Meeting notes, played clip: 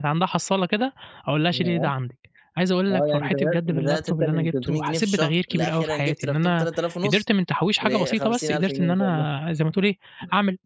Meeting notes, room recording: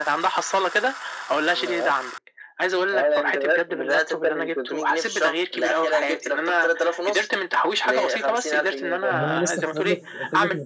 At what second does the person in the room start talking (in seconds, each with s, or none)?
9.1 s